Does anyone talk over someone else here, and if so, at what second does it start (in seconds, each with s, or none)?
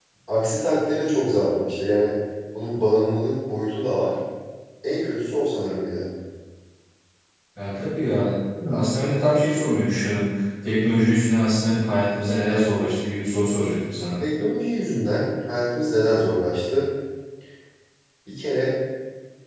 none